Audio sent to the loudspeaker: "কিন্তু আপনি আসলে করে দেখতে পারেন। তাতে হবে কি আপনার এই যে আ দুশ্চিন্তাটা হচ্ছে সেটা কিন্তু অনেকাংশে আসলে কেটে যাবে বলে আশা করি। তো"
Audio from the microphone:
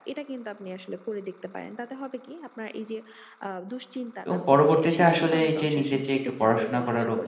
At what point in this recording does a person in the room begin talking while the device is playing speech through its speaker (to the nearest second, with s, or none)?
4 s